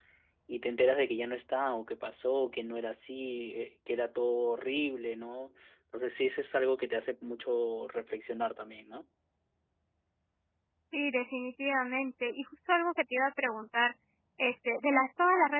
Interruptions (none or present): none